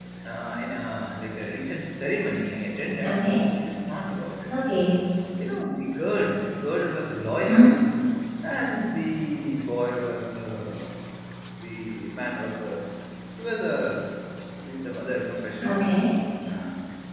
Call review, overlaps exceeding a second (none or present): none